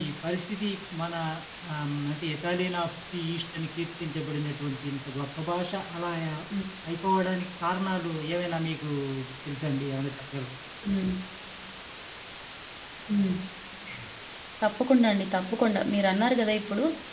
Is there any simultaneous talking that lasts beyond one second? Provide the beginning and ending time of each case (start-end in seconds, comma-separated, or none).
none